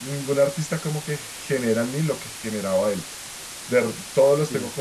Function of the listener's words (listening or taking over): listening